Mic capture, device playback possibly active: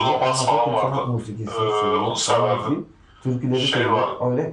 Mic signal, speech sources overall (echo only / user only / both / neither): both